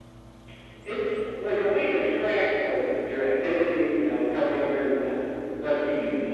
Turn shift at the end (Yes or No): No